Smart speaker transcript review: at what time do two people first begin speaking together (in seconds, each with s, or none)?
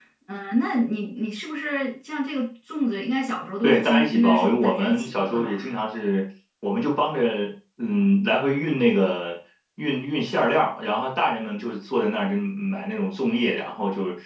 3.6 s